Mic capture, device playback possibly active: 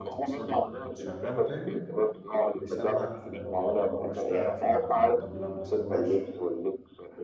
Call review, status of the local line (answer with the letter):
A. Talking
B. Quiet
A